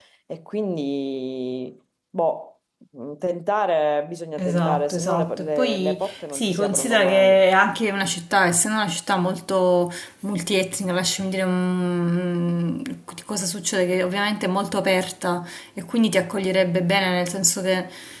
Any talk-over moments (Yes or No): Yes